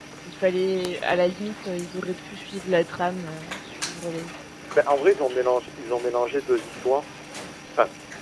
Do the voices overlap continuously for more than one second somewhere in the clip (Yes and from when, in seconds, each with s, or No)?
No